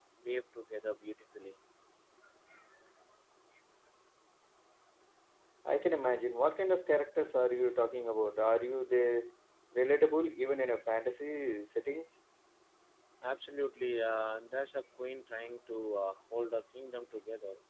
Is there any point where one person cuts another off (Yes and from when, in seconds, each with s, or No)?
No